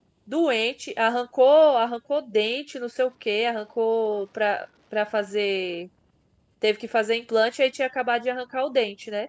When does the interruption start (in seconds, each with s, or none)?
none